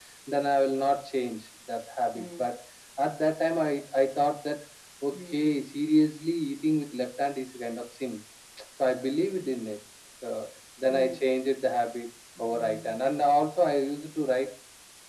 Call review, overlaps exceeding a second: none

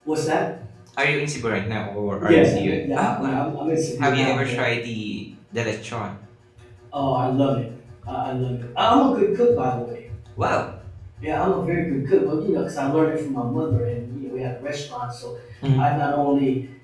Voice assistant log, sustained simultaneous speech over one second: present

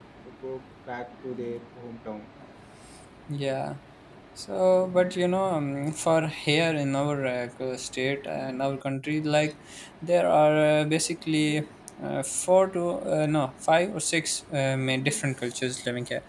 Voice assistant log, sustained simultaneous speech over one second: none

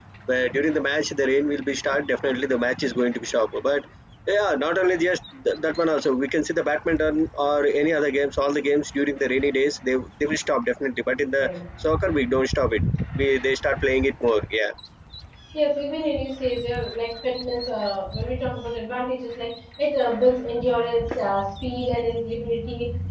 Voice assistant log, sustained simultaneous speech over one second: none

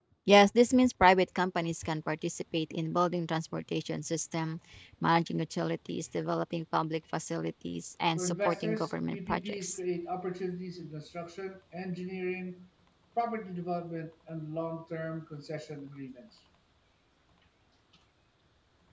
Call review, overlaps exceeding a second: present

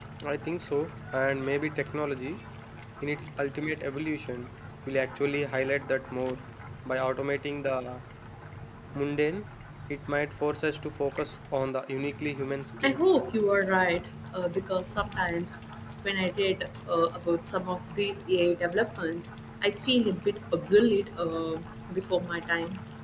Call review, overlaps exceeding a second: none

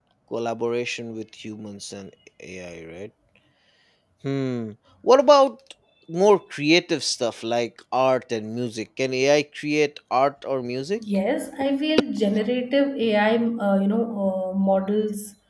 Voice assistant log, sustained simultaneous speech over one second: none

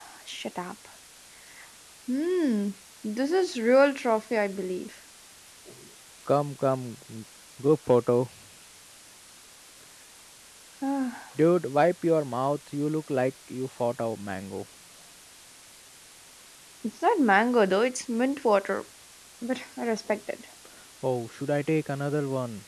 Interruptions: none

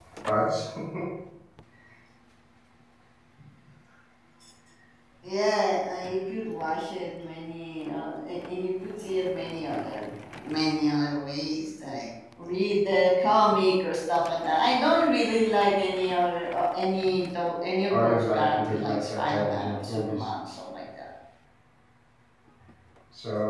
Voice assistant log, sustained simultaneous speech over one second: present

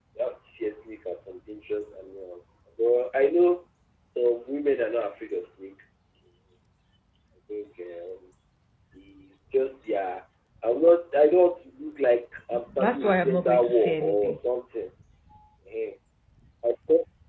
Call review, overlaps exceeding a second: present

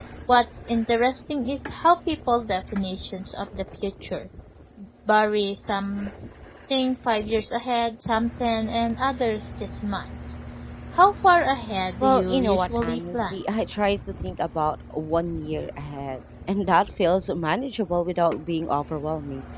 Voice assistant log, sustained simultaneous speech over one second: present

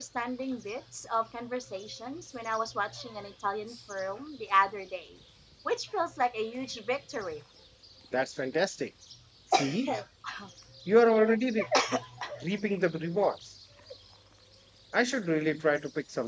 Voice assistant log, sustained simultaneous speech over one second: none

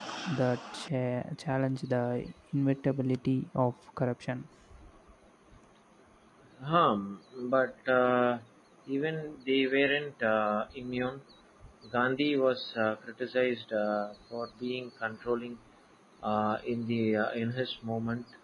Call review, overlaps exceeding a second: none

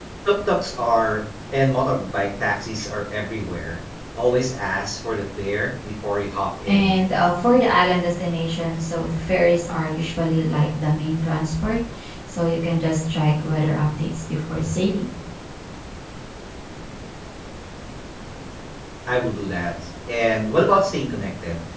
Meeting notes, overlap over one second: none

